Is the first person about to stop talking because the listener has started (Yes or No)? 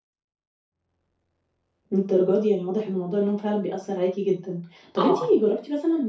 No